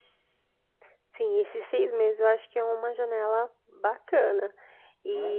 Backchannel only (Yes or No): Yes